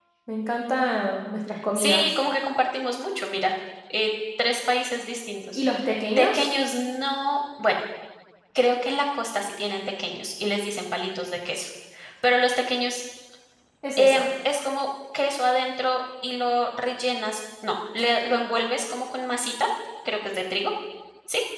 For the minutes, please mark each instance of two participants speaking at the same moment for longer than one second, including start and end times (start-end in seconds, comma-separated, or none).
none